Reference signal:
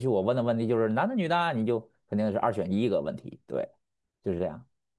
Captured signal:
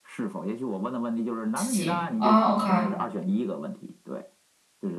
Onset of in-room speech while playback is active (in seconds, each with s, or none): 1.5 s